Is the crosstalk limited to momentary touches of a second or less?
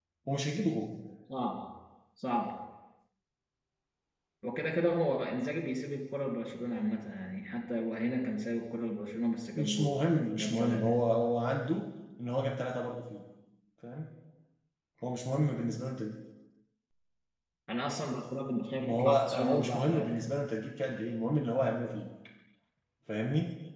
No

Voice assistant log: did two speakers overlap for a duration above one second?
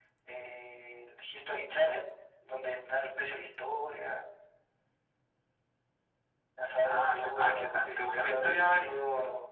Yes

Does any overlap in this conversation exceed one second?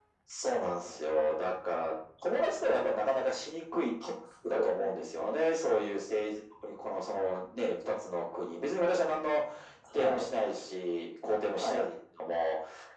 No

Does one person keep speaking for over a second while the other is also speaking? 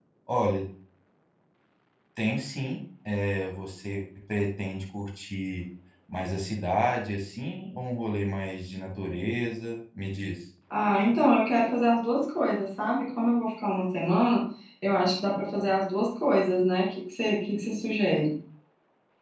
No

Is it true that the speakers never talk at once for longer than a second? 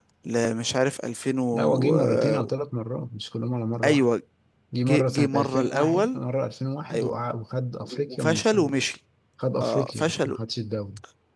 No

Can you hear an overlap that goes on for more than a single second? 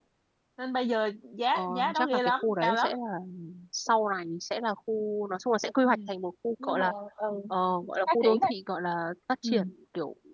Yes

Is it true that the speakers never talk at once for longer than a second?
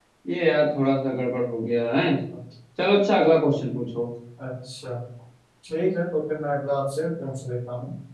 Yes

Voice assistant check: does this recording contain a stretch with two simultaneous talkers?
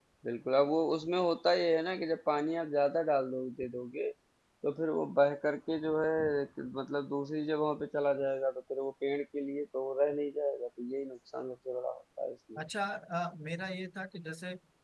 No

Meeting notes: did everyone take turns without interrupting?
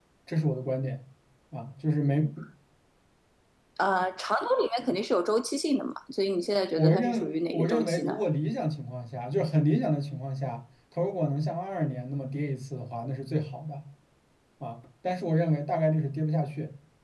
No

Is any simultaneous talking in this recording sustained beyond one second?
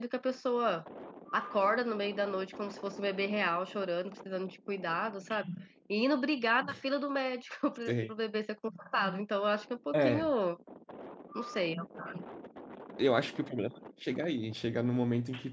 No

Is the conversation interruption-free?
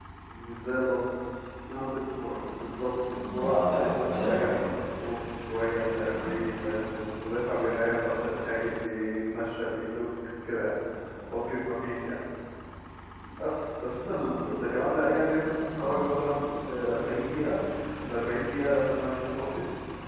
No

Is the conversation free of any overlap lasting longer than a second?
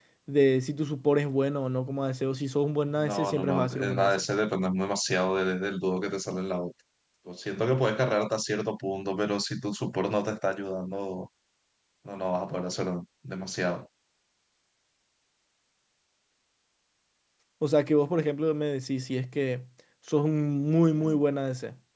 No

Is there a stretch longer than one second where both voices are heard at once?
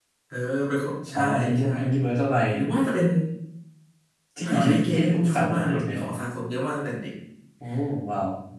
Yes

